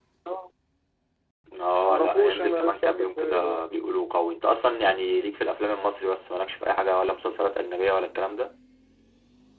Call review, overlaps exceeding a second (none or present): present